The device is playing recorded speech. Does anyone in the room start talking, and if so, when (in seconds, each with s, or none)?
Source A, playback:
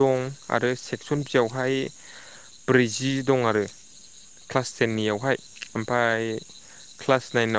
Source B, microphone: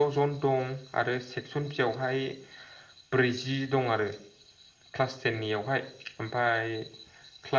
none